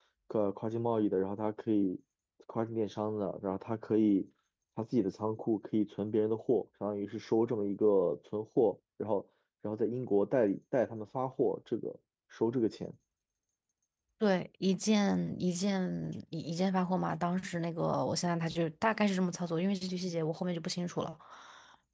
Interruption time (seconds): none

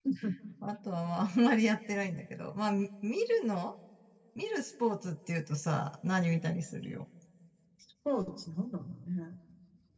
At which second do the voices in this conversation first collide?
none

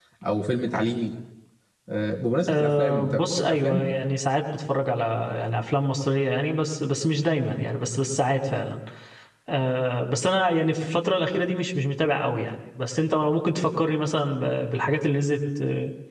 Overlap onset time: 2.5 s

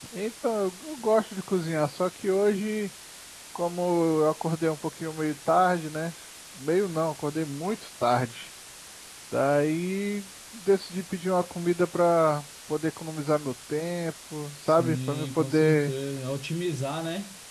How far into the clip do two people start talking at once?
14.7 s

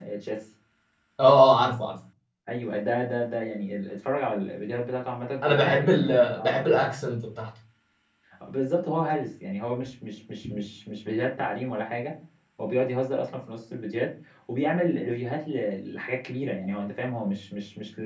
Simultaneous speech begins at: 5.4 s

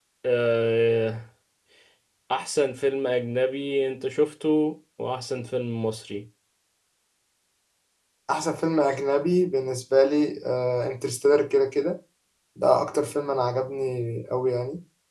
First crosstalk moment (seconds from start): none

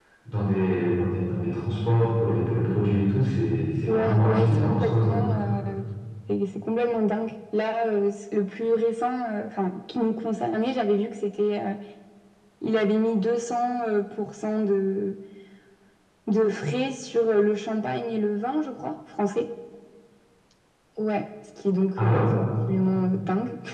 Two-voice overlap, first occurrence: 3.9 s

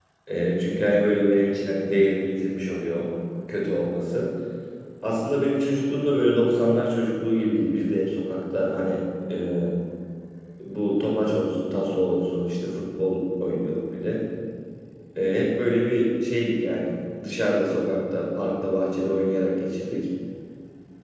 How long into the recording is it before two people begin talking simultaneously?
none

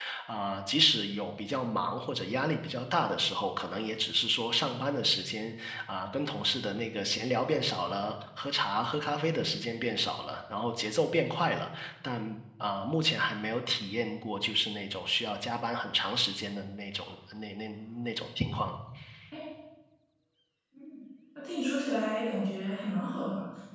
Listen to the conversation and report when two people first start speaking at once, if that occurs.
none

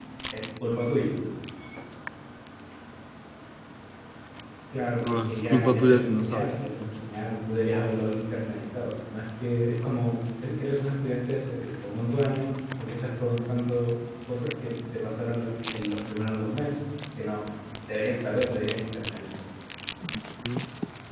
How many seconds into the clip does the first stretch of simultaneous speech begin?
5.0 s

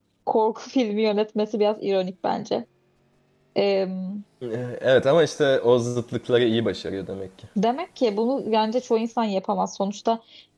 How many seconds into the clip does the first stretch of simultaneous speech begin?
none

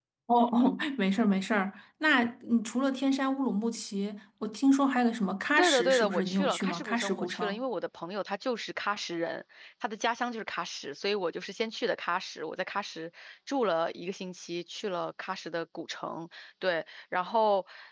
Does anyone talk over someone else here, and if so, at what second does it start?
5.6 s

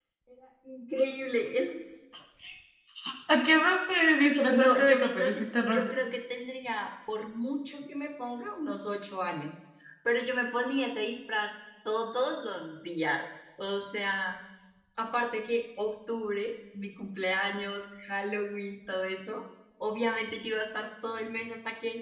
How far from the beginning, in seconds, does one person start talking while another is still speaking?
4.5 s

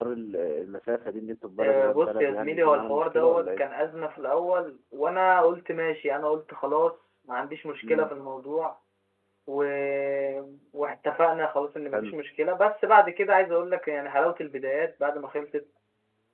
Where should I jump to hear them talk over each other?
1.6 s

